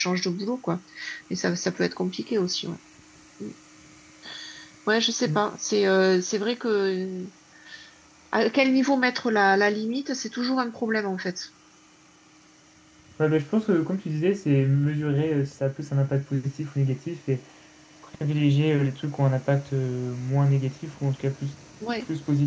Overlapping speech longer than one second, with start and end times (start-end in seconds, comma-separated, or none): none